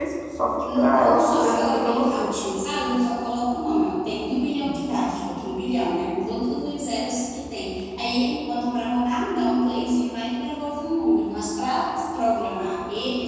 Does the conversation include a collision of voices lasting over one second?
Yes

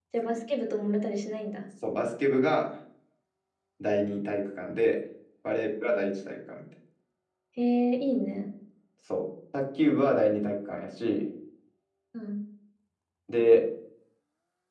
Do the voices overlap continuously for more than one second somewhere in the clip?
No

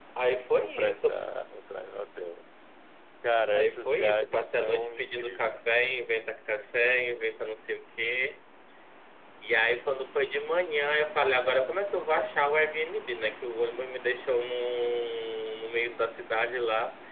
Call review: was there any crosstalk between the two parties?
Yes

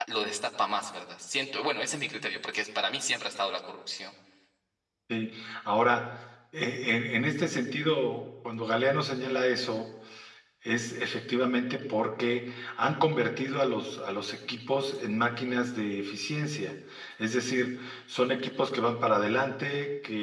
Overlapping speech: No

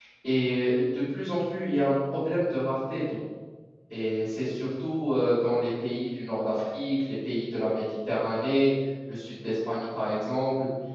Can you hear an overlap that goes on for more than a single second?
No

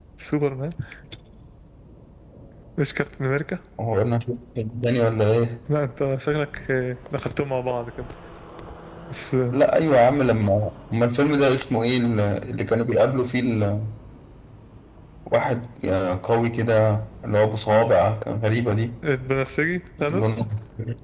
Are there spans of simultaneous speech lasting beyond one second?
No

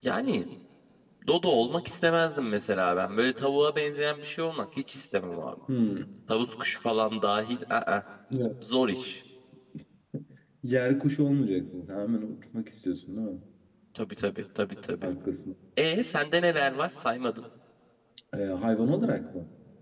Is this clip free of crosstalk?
Yes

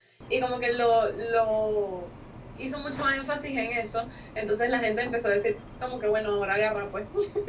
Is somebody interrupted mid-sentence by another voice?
No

